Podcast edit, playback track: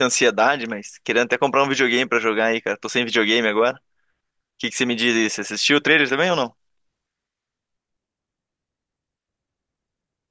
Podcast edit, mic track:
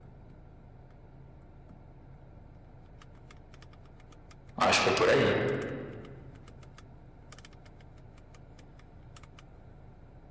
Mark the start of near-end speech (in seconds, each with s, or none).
4.6 s